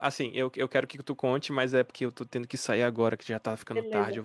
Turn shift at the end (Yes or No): Yes